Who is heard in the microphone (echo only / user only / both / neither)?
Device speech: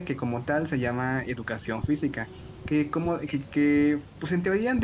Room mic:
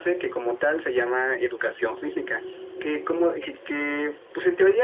echo only